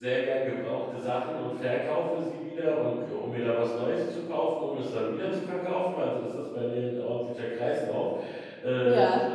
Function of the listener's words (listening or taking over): listening